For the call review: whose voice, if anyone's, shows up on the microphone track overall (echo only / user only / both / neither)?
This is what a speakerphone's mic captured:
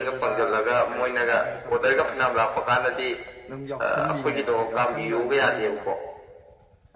both